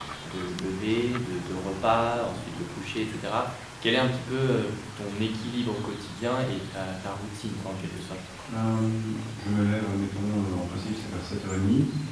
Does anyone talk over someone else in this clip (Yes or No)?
No